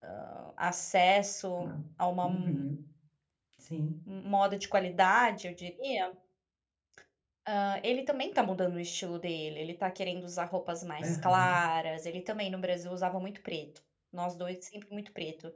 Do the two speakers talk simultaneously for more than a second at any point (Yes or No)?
No